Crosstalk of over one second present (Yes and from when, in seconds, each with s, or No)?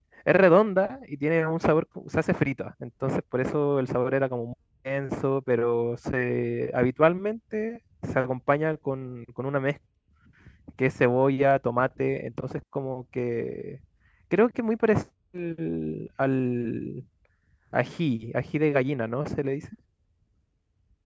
No